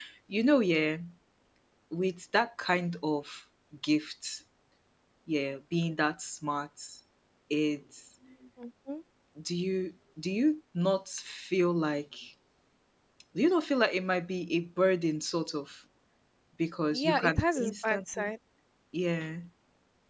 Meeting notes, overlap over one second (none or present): present